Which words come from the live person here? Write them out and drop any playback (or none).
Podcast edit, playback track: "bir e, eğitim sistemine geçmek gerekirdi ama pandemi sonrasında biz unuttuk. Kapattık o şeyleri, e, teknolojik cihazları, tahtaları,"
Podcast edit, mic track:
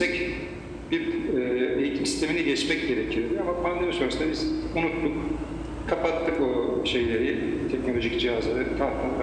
none